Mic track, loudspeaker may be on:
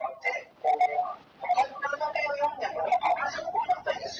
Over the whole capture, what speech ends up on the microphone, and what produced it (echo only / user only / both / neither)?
echo only